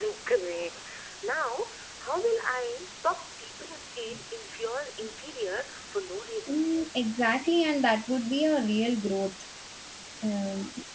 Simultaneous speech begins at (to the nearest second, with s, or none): none